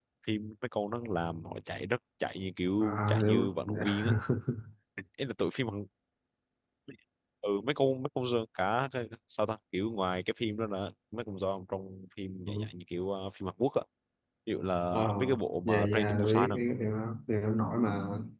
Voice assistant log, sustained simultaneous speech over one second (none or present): present